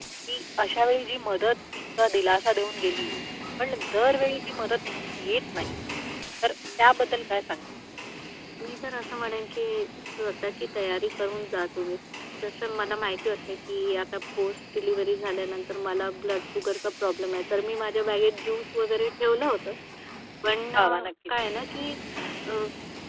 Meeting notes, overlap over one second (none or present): none